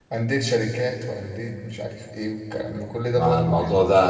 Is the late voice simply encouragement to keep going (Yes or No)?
No